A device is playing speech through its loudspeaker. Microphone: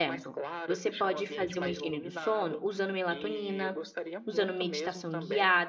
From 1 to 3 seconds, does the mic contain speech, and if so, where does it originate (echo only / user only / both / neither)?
both